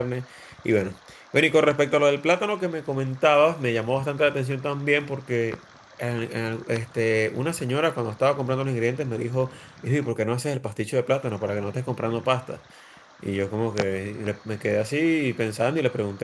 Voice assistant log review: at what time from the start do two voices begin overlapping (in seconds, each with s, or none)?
none